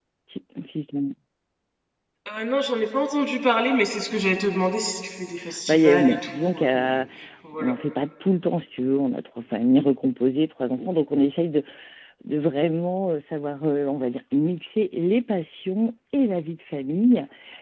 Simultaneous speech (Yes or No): Yes